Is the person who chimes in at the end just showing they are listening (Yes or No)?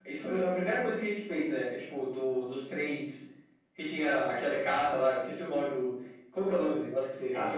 No